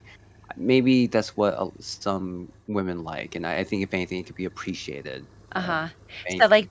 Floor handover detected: Yes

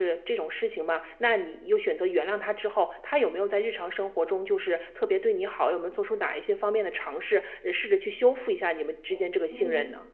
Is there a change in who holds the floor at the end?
Yes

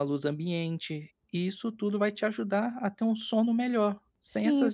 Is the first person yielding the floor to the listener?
Yes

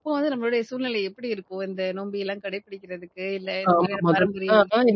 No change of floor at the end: No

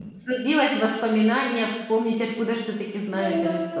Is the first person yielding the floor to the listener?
Yes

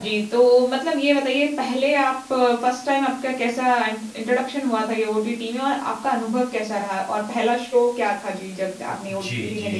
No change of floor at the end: No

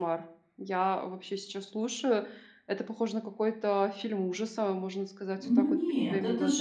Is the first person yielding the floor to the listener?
Yes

